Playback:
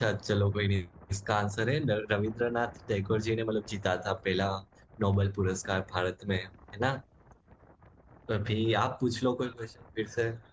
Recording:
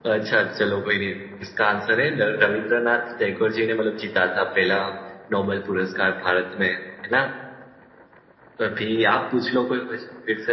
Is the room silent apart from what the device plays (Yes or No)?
Yes